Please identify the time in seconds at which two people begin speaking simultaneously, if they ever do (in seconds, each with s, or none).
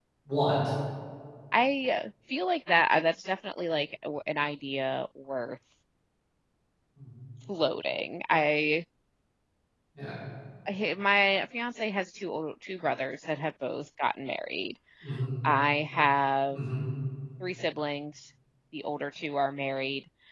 none